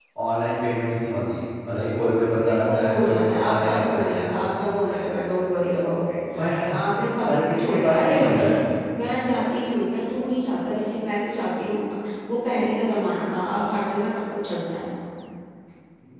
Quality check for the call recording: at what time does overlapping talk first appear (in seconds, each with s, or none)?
2.5 s